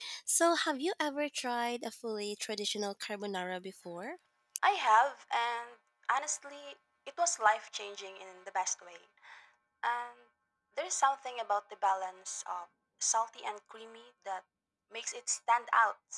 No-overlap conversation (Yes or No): Yes